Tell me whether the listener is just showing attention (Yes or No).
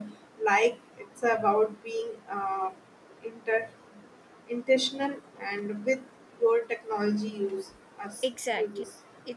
No